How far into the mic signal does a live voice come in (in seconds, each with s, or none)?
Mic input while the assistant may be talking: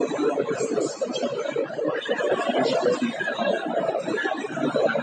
none